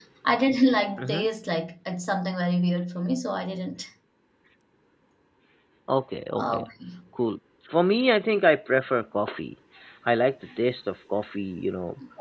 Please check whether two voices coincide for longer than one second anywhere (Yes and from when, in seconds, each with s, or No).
No